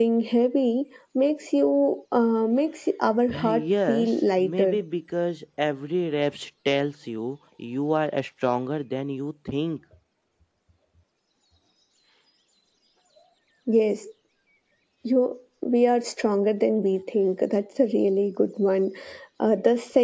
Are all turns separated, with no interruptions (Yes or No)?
No